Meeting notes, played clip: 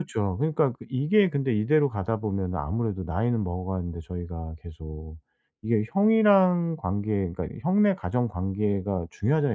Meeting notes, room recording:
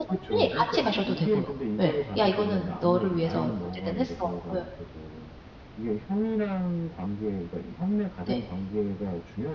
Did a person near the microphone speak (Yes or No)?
Yes